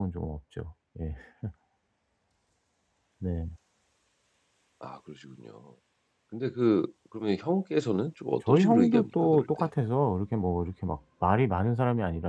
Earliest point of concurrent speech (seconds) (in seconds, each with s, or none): 8.5 s